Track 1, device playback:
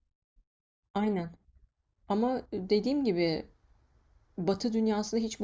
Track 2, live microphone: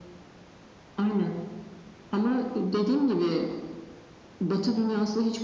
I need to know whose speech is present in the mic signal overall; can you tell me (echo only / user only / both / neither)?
echo only